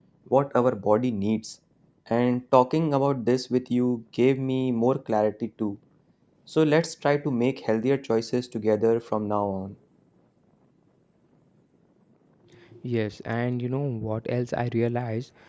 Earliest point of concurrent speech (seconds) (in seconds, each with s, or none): none